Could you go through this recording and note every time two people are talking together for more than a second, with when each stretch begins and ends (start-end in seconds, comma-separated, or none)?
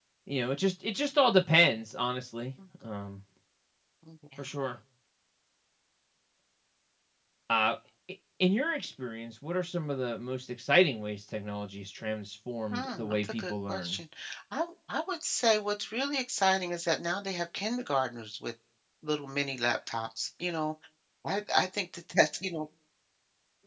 12.7-14.0